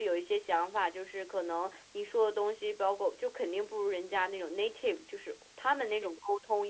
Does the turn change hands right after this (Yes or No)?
No